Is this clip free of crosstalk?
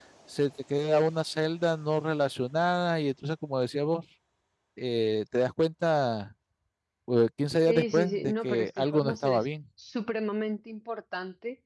No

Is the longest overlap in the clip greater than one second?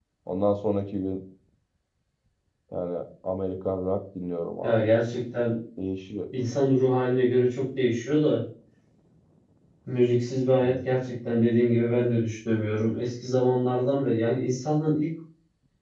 No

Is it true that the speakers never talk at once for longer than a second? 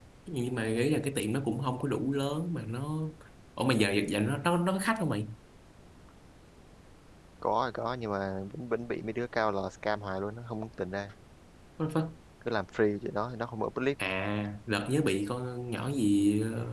Yes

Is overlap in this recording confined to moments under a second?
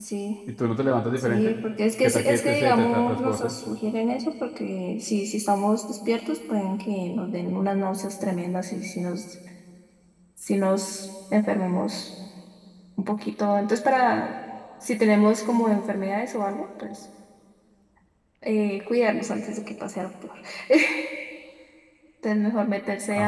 No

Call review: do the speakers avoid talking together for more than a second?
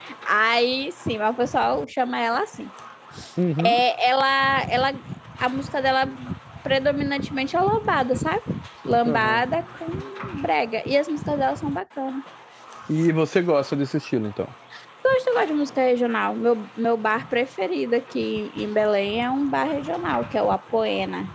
Yes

